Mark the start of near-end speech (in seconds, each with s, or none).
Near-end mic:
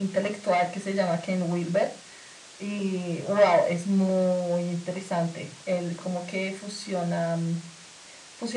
none